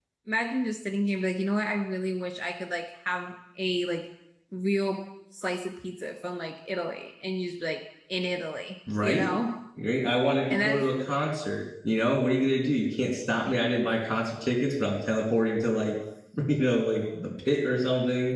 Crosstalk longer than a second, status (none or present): none